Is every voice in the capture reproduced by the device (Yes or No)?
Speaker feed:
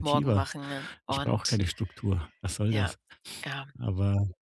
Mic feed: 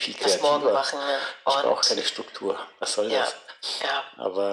Yes